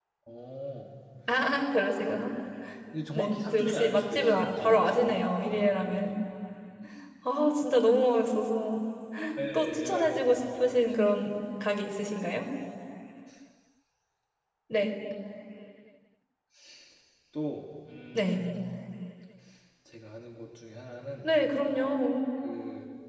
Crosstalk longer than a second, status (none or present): present